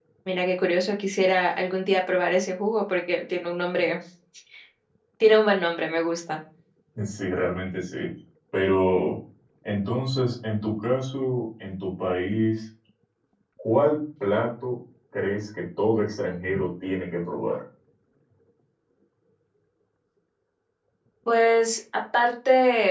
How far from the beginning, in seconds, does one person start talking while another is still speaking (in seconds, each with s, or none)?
none